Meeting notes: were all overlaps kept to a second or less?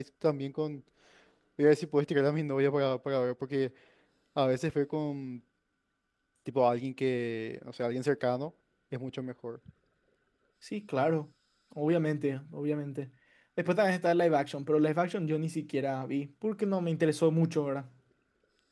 Yes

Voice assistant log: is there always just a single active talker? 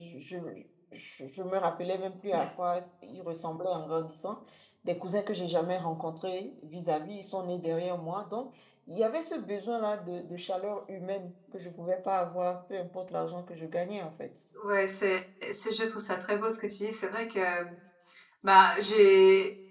Yes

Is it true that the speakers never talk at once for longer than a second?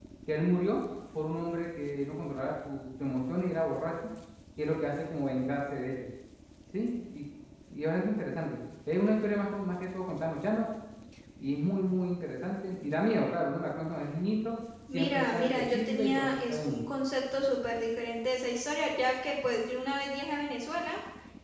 No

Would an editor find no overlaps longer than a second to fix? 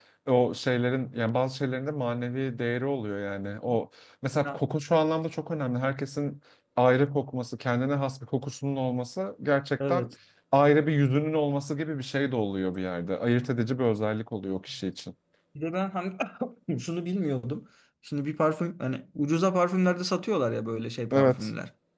Yes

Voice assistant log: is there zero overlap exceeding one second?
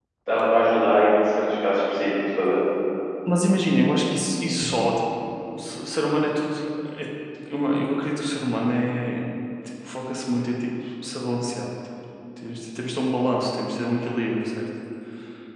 Yes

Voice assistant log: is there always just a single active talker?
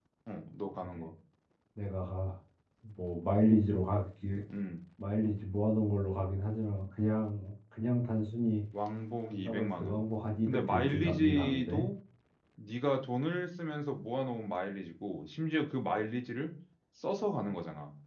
No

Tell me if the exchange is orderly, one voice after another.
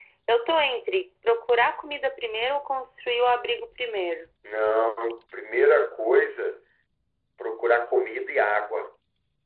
Yes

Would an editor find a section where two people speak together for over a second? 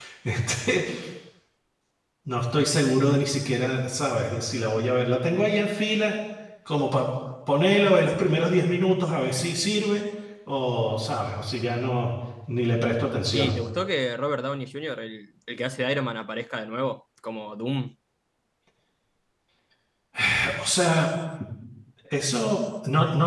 No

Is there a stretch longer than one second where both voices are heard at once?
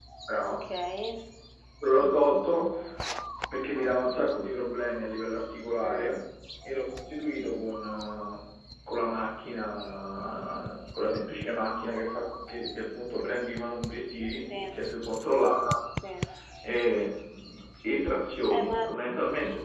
No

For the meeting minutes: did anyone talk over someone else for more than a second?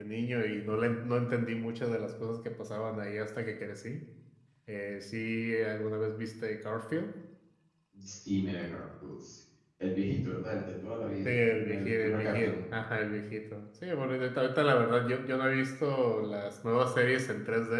Yes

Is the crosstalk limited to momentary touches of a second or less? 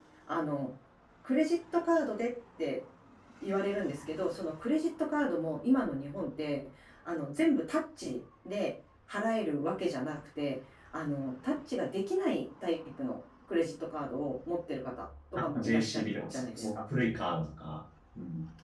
No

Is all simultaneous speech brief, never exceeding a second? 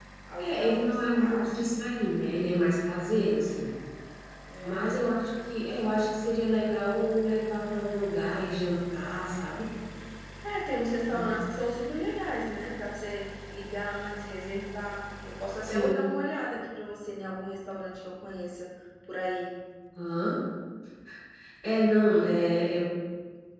No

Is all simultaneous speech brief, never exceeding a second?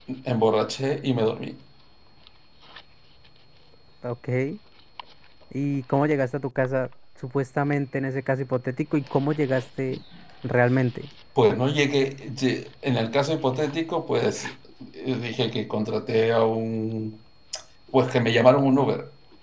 Yes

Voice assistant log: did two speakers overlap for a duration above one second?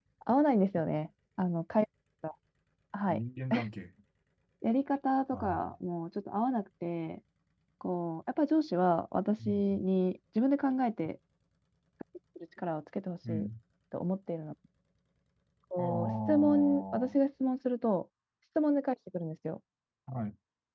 Yes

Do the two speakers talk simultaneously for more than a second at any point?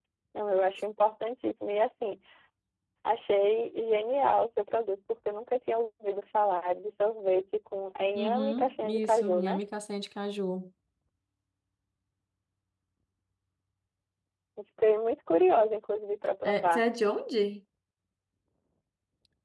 Yes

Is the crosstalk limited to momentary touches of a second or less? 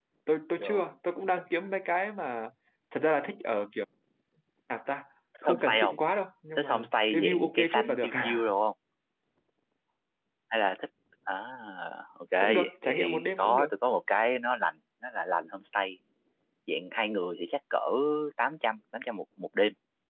No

